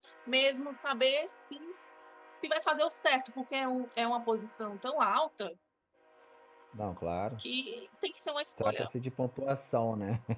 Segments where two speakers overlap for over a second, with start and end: none

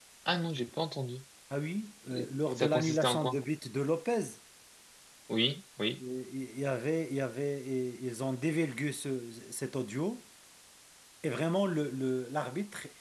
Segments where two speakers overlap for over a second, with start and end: 2.1-3.4

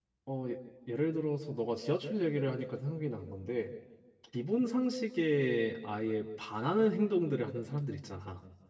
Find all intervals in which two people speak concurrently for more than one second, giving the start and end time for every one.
none

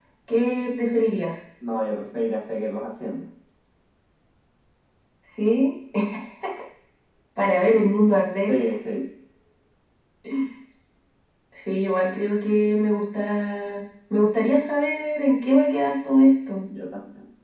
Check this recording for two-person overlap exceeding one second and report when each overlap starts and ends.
none

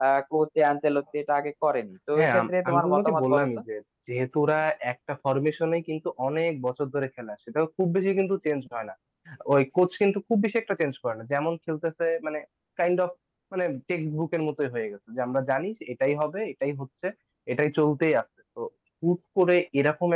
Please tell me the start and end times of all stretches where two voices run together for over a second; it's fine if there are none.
2.1-3.5

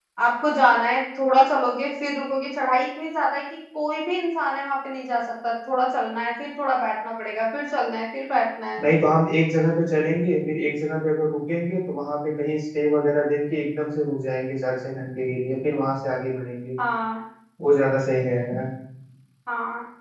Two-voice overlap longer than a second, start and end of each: none

